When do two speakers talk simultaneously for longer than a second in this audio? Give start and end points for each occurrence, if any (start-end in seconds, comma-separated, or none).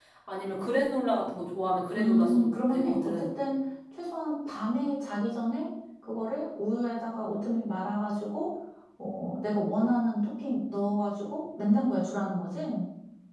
2.0-3.3